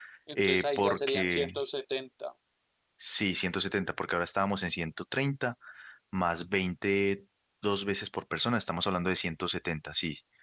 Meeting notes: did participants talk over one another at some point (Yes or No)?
Yes